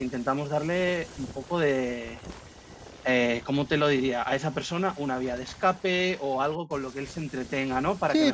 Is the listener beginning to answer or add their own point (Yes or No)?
Yes